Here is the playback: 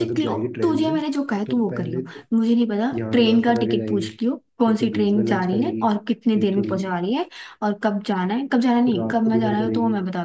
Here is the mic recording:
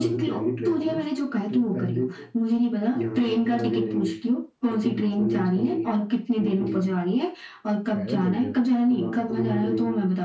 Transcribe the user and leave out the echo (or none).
पैदल चलते हैं भाई